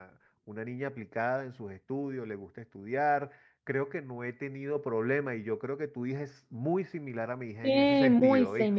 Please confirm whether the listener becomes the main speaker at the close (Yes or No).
Yes